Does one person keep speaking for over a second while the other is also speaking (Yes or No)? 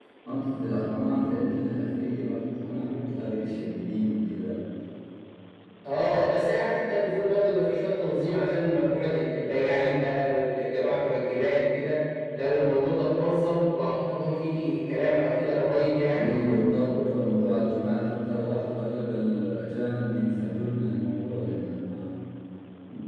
No